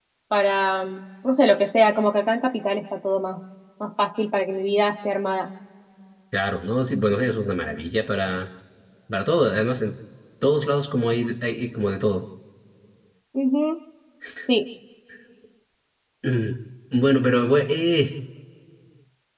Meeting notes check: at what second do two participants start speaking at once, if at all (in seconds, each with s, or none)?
none